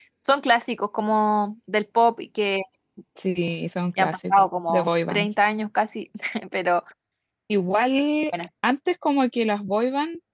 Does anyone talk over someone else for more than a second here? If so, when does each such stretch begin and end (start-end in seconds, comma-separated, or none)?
4.0-5.3